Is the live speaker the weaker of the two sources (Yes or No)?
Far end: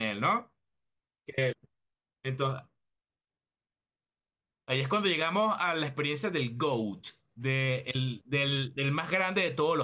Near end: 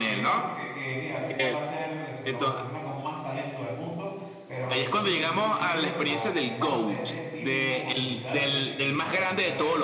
Yes